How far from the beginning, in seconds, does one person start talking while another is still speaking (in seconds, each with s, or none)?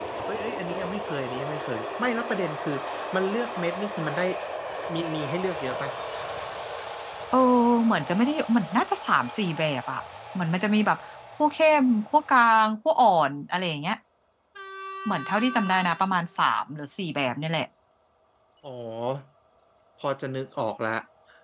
none